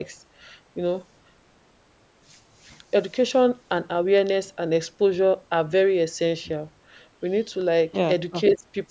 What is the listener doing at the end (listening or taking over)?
listening